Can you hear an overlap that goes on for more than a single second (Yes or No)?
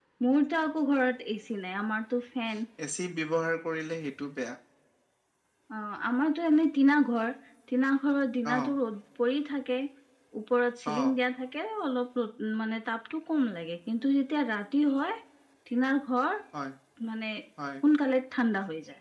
No